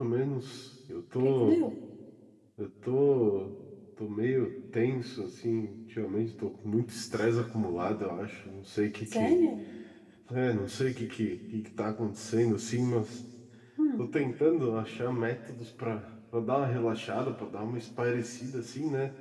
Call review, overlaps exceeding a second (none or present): none